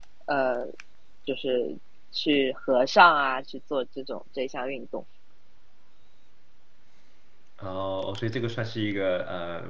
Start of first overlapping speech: none

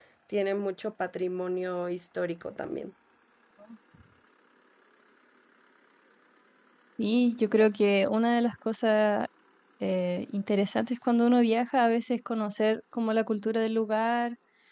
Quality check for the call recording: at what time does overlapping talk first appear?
none

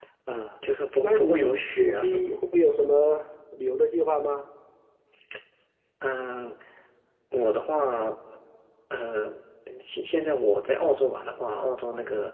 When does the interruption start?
1.0 s

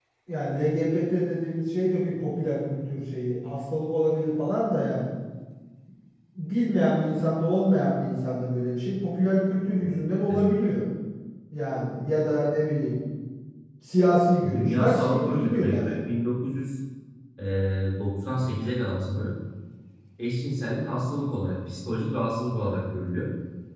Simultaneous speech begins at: 14.5 s

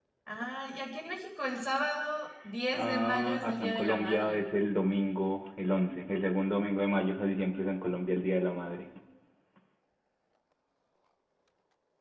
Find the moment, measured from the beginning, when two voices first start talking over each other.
2.7 s

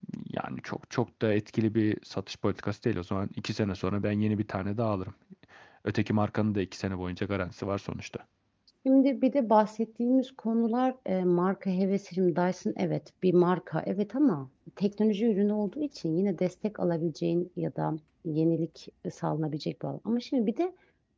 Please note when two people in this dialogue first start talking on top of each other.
none

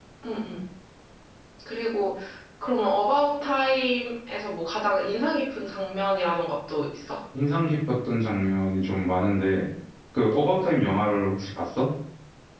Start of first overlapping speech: none

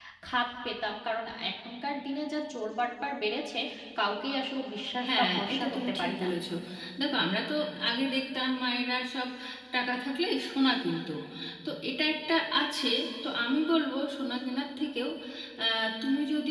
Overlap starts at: 5.0 s

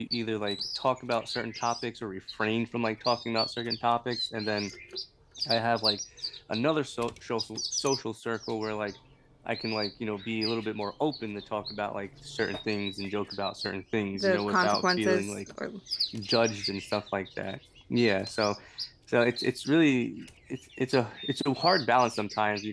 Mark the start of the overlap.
14.1 s

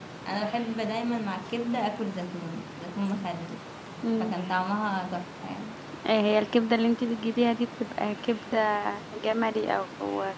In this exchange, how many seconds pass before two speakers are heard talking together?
none

